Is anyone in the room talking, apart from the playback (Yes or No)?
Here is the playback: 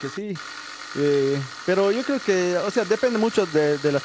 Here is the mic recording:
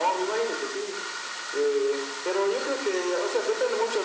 No